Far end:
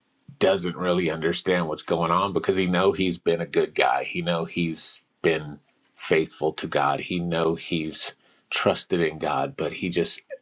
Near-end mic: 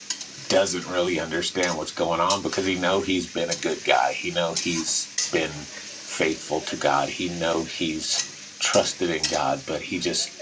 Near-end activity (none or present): none